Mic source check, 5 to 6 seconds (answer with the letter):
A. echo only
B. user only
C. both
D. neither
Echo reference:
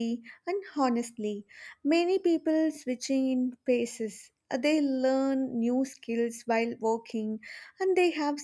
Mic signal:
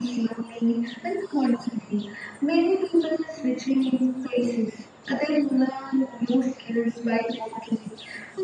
A